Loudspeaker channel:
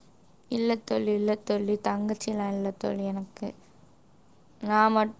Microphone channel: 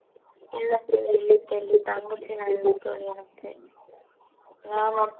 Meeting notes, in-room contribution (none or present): none